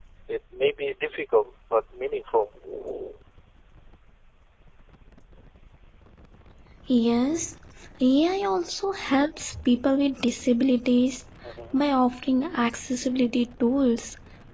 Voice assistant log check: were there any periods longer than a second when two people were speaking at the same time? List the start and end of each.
none

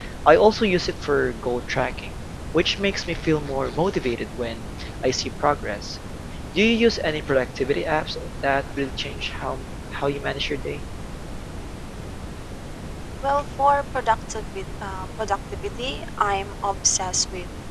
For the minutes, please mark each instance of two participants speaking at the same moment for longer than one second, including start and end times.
none

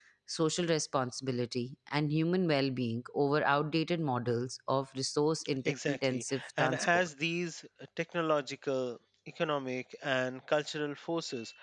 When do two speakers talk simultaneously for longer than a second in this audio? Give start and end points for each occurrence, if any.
5.7-7.1

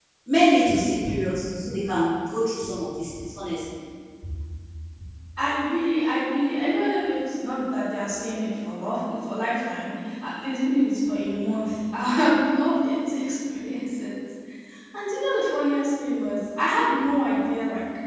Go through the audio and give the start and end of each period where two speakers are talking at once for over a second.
none

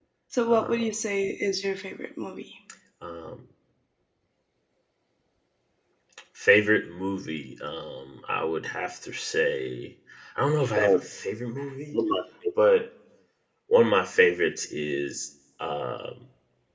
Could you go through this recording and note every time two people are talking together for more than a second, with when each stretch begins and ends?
none

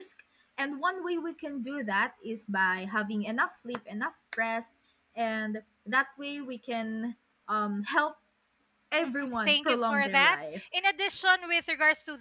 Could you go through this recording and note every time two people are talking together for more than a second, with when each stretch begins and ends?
9.0-10.6

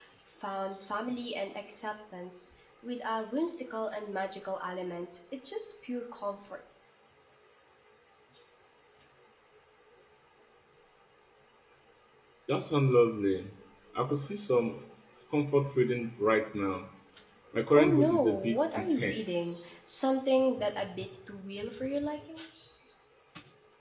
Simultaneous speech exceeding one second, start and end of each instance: 17.8-19.4

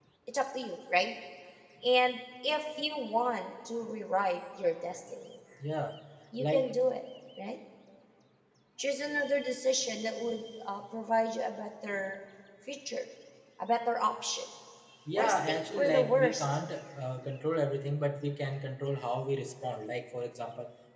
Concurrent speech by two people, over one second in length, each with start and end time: 15.2-16.4

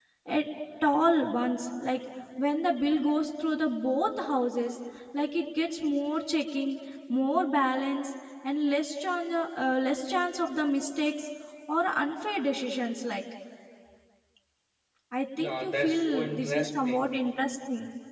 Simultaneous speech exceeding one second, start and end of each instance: 15.4-17.1

